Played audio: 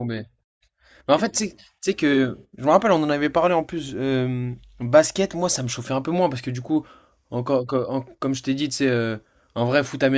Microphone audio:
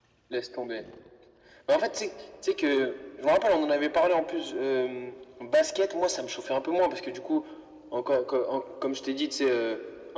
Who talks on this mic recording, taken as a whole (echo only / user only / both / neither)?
echo only